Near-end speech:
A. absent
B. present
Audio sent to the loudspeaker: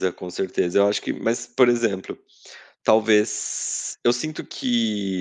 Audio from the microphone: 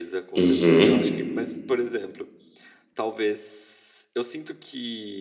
B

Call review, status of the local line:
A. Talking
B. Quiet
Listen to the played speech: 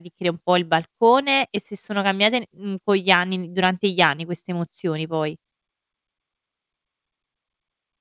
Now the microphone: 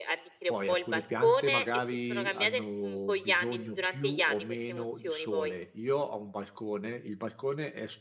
A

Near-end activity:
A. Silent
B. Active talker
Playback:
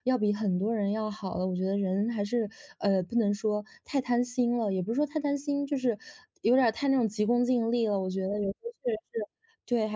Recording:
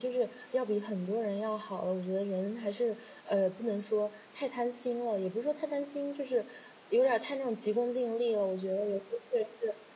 A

